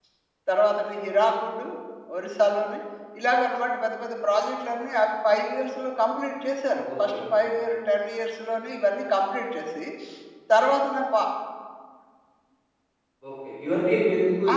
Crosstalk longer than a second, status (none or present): none